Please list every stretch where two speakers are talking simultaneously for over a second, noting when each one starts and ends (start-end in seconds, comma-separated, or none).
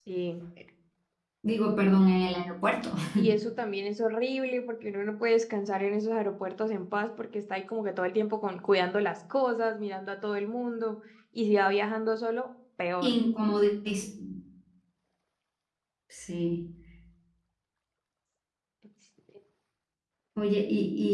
none